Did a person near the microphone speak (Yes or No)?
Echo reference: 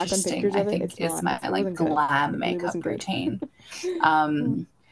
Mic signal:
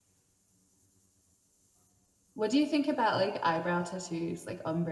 Yes